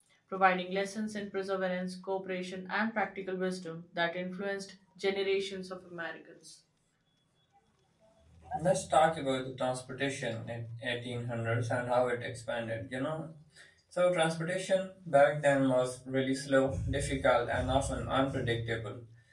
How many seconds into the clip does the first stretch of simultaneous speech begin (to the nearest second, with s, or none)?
none